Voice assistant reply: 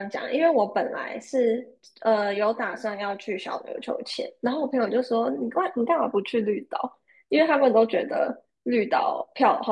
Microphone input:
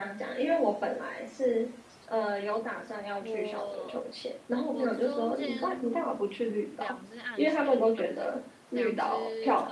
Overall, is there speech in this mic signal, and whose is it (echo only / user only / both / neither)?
both